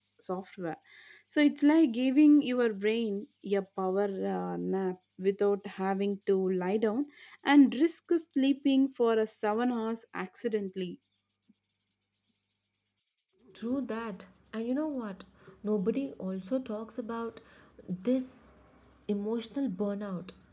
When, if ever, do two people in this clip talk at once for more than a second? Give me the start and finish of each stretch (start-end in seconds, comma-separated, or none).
none